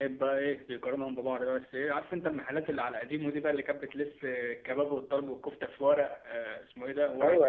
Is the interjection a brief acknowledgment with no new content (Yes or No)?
No